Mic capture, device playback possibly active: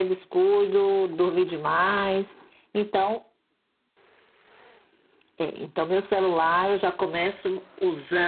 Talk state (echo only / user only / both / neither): echo only